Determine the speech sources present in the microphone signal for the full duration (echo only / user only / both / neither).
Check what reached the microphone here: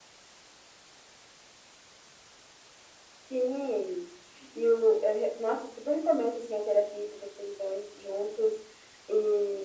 echo only